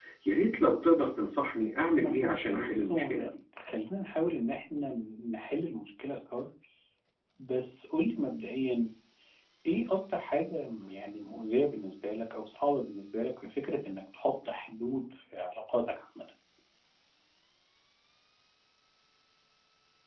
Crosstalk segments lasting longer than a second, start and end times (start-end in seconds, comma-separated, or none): 2.0-3.3